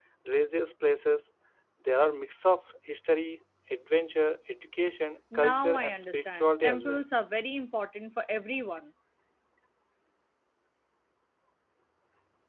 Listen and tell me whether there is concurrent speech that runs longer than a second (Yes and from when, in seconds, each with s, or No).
Yes, from 5.3 s